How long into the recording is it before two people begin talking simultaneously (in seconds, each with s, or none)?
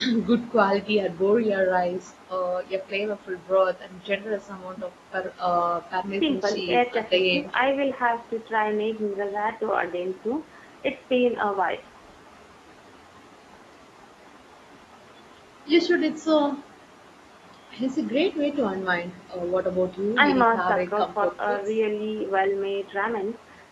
6.2 s